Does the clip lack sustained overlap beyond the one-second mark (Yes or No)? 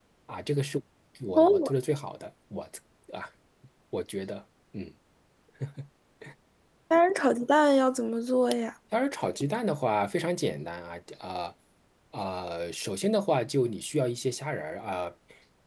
Yes